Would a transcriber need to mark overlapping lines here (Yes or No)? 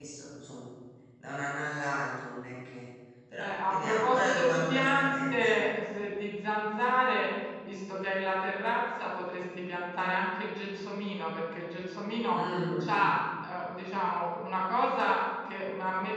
Yes